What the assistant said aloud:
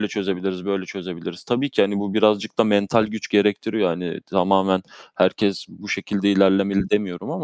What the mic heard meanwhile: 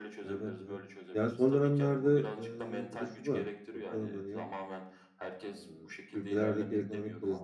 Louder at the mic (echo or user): user